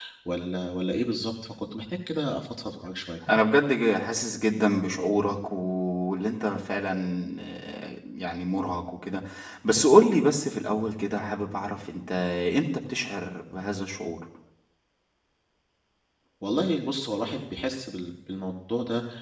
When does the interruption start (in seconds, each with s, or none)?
none